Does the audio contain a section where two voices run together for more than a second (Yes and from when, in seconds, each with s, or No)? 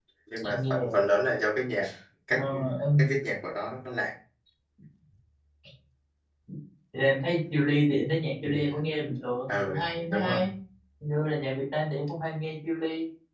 No